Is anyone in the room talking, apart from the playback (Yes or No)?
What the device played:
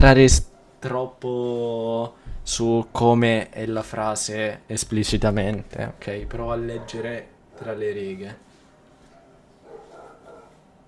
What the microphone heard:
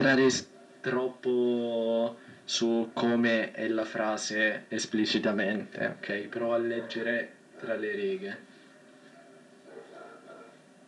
No